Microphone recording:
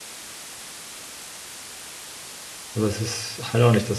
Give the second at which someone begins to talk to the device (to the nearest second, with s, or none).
3 s